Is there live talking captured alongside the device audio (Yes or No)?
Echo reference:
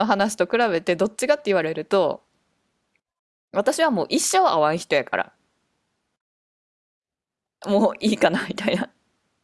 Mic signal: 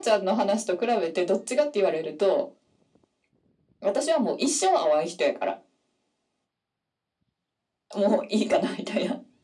No